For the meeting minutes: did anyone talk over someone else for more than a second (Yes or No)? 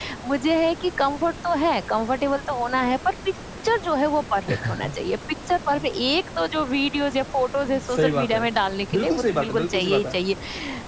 Yes